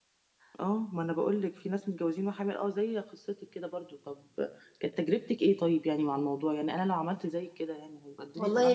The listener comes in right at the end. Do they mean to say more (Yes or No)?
Yes